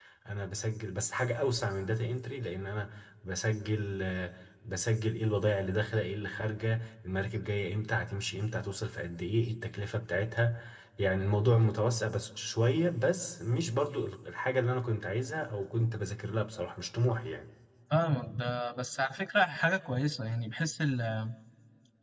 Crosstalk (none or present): none